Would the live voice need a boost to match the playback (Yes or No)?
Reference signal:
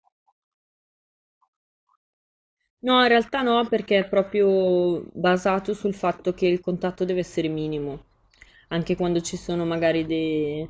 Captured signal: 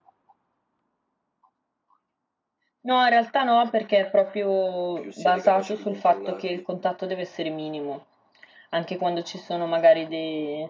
Yes